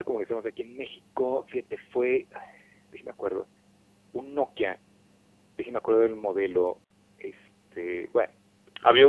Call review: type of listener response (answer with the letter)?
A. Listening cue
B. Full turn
B